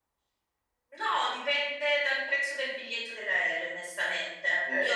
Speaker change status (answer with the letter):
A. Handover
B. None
B